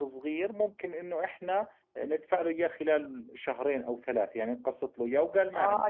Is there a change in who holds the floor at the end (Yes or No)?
Yes